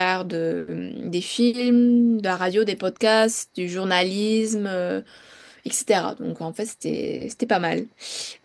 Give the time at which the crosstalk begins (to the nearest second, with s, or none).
none